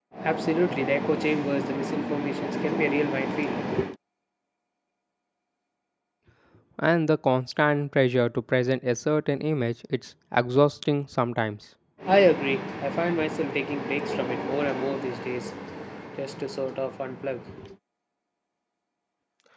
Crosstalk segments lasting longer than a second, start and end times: none

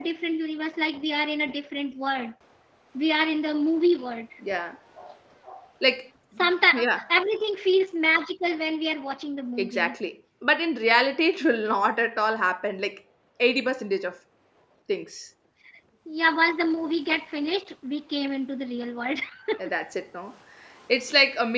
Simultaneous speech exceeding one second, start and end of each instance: none

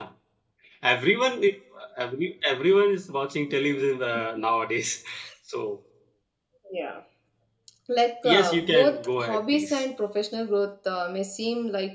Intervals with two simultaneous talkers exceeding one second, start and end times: 8.2-9.8

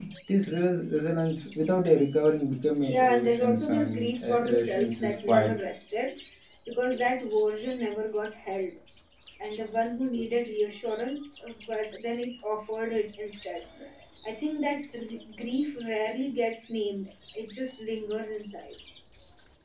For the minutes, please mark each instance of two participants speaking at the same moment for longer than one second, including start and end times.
2.9-5.5

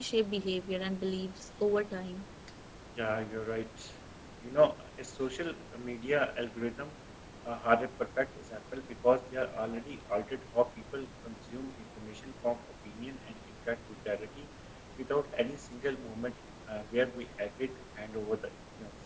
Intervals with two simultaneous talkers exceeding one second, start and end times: none

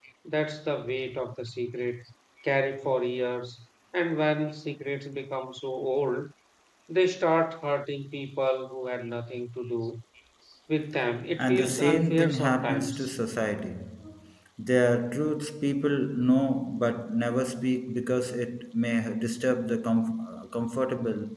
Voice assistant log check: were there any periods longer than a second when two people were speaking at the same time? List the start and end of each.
11.4-13.1

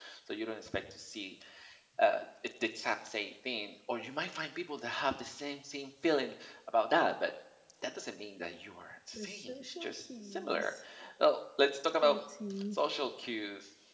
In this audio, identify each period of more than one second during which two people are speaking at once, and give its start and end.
9.1-10.7

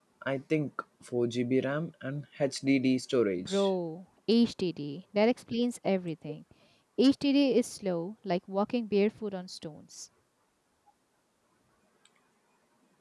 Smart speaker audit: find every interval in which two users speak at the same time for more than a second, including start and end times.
none

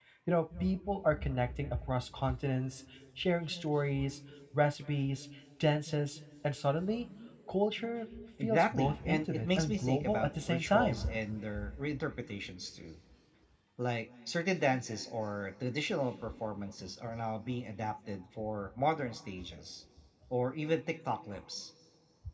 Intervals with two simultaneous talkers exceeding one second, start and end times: 8.4-11.1

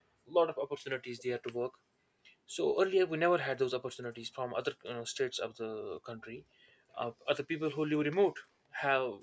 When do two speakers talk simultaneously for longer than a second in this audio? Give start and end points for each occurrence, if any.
none

